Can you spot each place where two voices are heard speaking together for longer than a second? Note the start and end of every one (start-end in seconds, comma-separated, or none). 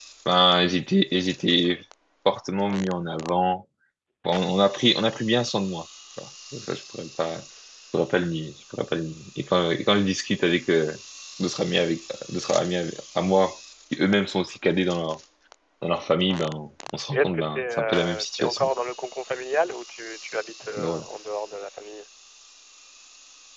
17.1-18.7